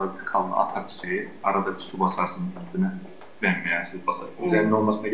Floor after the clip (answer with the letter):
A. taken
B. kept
B